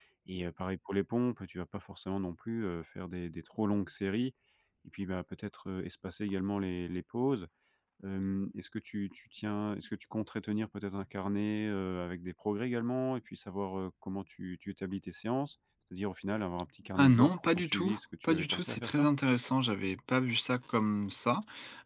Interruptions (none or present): present